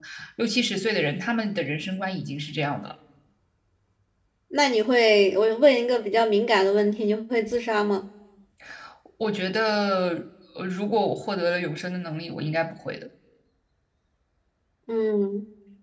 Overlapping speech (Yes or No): No